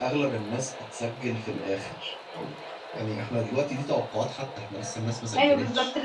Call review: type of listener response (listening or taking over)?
taking over